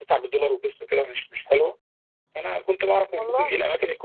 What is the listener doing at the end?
listening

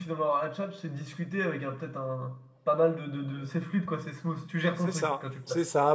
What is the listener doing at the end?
taking over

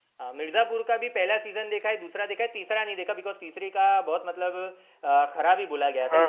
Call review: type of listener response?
taking over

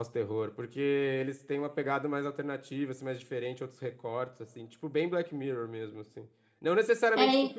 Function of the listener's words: listening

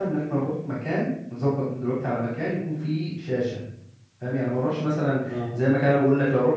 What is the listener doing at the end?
listening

